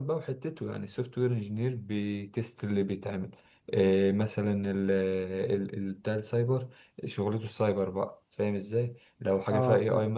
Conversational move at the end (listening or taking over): listening